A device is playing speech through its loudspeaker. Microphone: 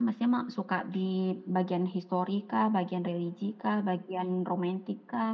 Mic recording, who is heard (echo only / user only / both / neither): user only